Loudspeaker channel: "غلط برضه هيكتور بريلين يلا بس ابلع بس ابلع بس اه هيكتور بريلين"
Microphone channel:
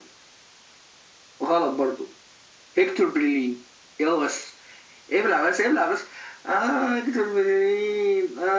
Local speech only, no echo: none

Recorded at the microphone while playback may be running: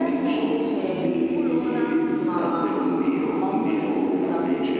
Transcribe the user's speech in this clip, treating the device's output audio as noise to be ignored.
none

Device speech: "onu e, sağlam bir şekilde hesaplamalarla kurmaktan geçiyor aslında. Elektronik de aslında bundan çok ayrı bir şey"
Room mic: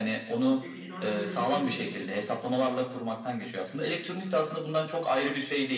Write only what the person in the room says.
Peki şu anda bölümünü seviyor musun?

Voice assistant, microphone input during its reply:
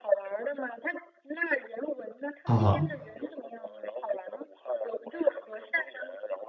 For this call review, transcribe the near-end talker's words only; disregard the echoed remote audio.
哈哈，

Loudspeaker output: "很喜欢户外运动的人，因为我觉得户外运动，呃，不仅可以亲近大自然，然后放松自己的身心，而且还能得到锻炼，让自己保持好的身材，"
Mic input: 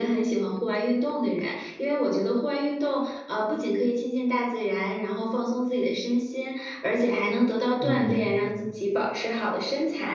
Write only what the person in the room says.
嗯。

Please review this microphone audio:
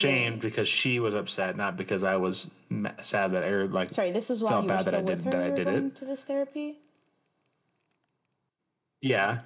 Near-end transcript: none

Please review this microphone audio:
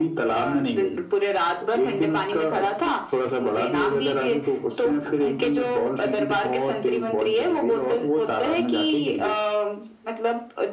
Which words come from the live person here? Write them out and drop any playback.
none

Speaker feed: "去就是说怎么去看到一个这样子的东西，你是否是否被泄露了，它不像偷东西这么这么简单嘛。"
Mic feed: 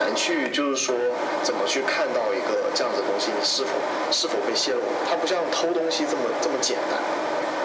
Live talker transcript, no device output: none

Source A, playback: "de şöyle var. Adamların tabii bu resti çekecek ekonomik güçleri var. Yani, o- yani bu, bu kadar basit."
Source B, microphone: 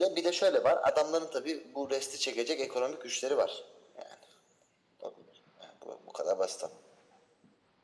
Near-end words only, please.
none

